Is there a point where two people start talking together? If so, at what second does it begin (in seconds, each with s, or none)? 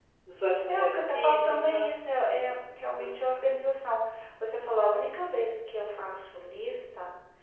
0.7 s